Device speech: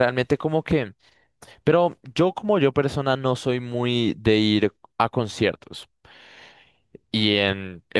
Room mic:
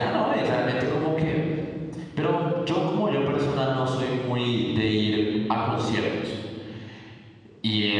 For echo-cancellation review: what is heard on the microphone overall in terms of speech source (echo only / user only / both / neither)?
echo only